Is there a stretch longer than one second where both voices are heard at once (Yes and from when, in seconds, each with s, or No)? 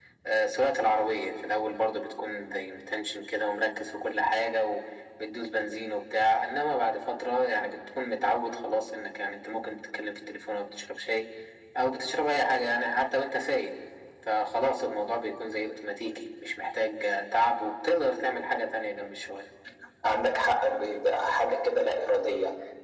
No